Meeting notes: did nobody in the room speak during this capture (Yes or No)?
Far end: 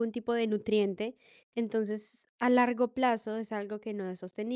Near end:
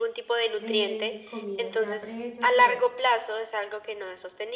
No